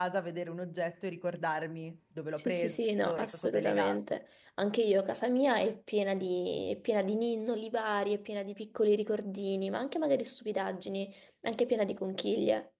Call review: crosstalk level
present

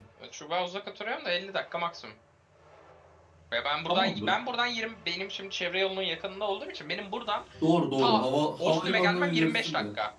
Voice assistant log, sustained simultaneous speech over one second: present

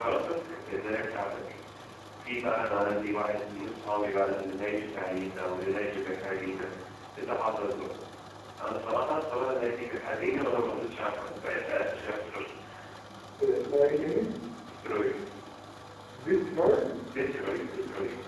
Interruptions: none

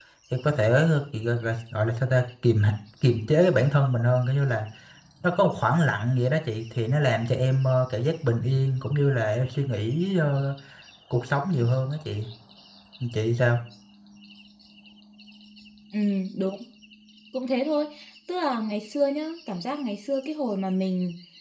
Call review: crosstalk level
none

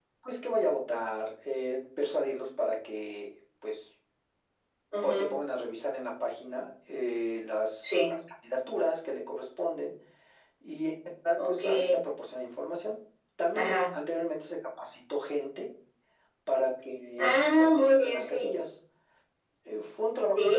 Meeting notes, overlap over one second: present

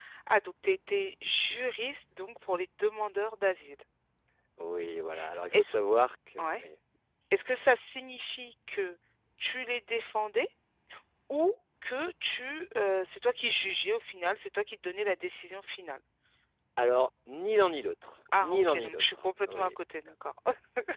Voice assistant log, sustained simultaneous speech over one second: present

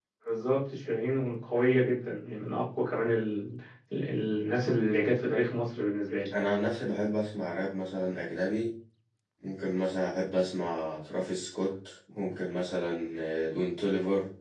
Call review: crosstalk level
none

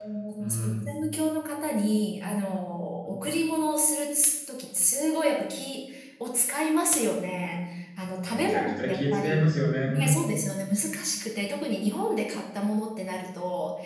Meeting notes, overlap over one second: present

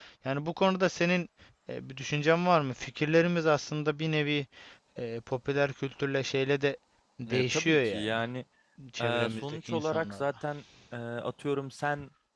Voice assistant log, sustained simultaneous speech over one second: present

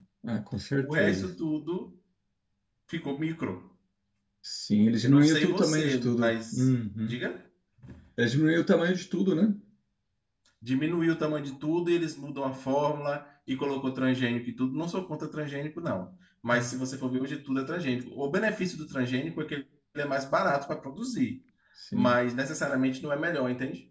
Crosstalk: present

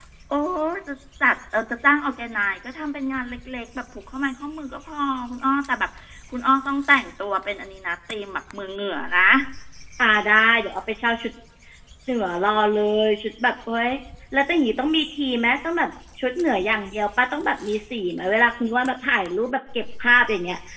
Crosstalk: none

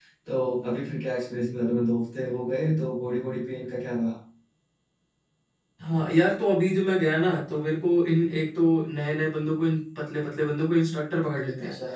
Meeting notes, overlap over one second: none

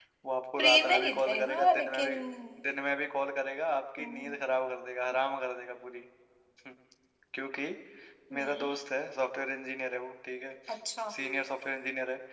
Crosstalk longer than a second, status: present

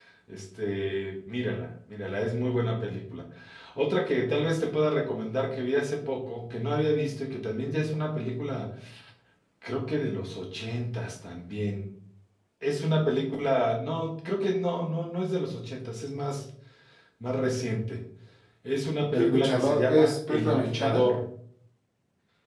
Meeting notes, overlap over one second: present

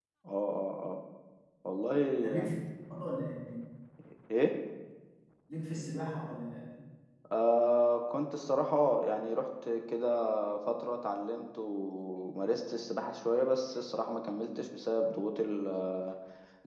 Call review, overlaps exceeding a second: none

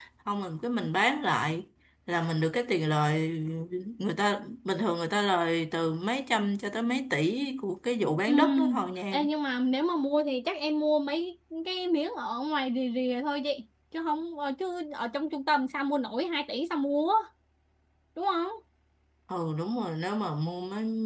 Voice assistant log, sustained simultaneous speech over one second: none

